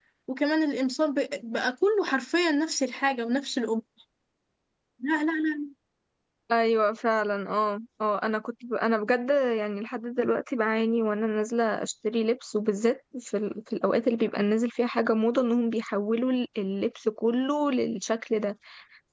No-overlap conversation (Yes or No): Yes